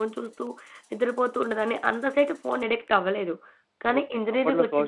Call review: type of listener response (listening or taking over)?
taking over